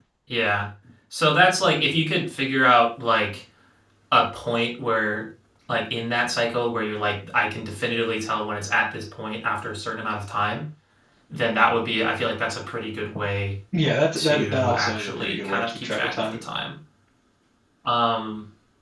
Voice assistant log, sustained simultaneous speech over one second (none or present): present